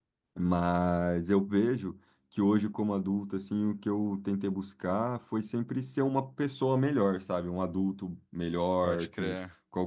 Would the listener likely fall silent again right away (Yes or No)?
Yes